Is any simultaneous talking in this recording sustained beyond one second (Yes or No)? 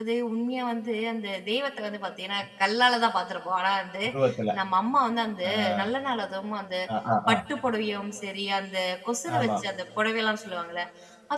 No